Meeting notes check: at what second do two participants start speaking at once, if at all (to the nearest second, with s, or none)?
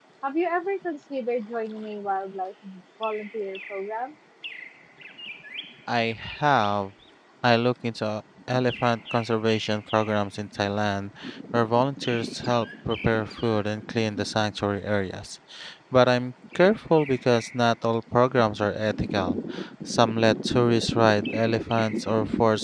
none